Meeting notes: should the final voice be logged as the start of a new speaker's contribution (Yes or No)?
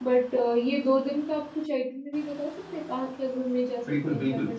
Yes